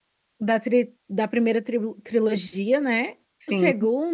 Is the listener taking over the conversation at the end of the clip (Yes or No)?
No